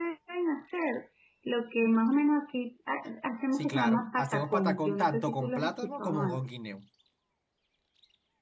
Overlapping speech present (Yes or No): Yes